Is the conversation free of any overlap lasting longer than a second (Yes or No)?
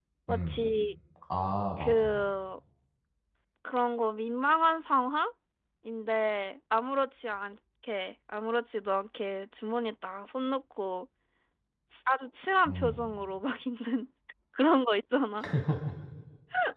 Yes